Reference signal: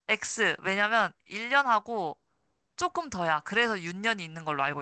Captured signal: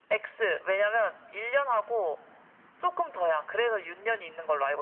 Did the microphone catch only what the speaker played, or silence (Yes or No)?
Yes